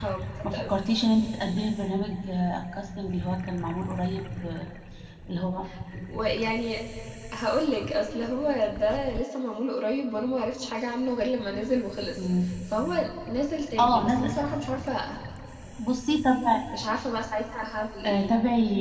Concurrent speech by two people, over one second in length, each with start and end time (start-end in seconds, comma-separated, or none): none